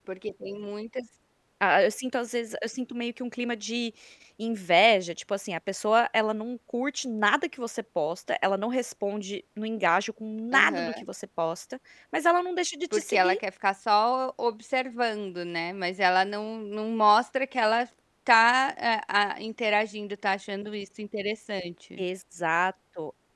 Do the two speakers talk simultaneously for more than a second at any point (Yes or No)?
No